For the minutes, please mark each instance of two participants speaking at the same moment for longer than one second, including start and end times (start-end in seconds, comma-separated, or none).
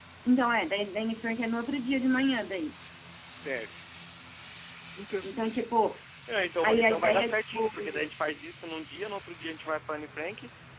6.6-8.1